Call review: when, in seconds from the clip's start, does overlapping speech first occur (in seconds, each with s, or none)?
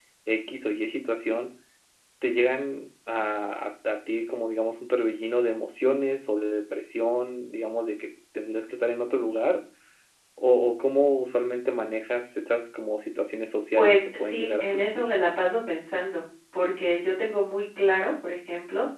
13.7 s